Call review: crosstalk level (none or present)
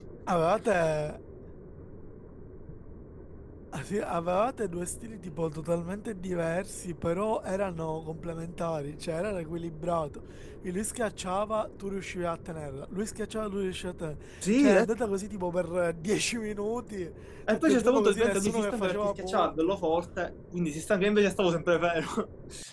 present